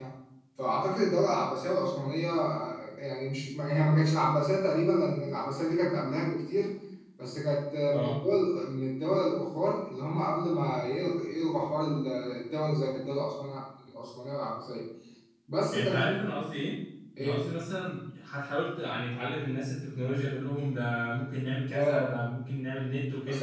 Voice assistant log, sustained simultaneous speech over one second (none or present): none